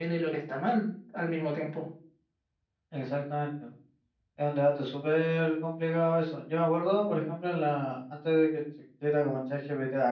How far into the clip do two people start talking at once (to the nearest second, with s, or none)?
none